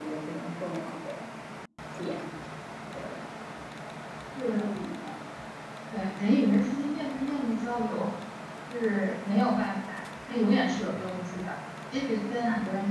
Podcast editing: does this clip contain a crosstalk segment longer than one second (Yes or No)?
No